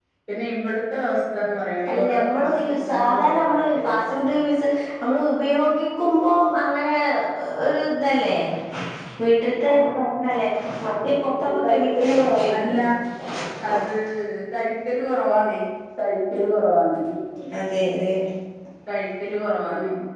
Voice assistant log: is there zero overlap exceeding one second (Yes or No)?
No